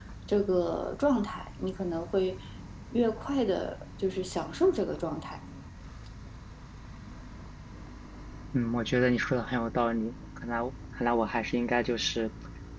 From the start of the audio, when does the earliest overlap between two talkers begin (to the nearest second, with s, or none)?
none